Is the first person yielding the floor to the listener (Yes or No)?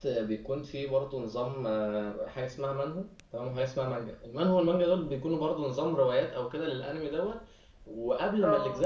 No